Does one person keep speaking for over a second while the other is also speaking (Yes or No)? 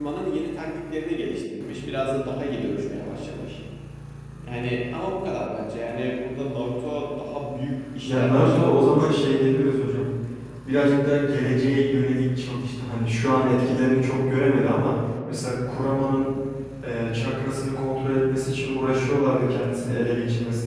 Yes